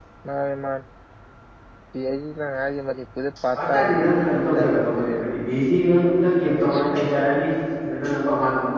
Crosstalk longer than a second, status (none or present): present